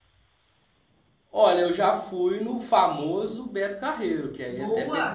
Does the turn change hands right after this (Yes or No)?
Yes